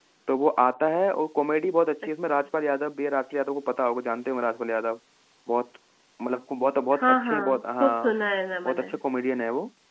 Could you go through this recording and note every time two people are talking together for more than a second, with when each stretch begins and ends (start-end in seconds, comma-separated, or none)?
6.9-8.2